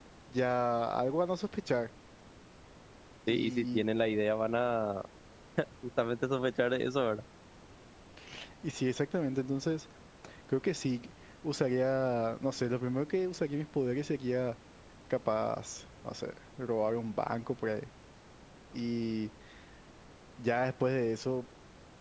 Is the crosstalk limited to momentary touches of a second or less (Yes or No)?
Yes